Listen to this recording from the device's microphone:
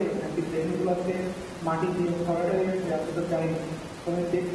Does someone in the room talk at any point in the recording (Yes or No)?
No